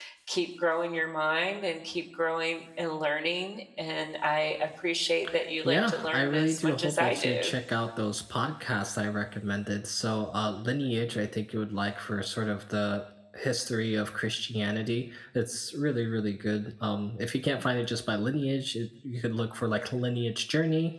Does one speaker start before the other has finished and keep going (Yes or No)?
Yes